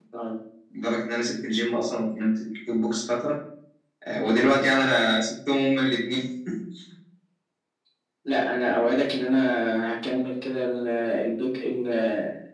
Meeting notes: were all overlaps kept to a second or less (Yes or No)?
Yes